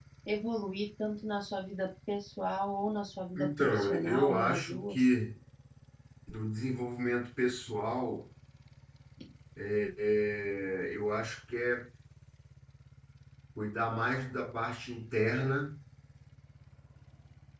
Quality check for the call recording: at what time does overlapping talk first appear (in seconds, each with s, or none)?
3.4 s